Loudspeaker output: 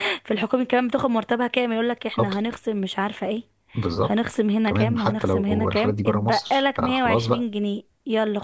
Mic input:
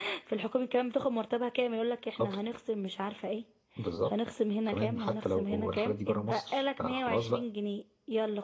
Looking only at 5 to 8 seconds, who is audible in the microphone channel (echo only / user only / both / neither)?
echo only